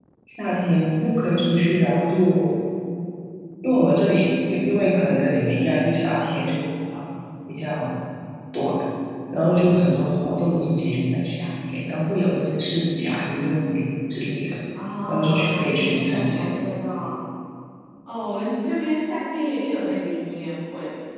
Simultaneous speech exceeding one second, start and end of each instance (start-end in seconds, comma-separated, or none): 15.1-16.6